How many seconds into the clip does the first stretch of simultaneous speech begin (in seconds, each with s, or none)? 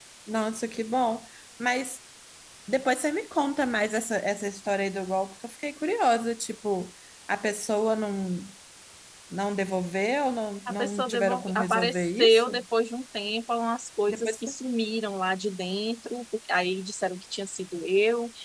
10.7 s